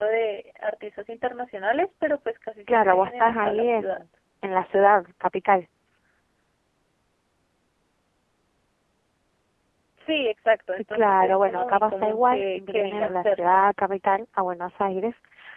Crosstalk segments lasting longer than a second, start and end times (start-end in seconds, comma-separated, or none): 2.7-4.0, 10.9-13.7